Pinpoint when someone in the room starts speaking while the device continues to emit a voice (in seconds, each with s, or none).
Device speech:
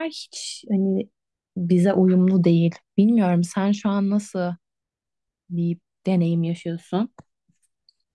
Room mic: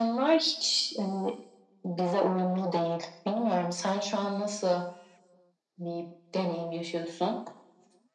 none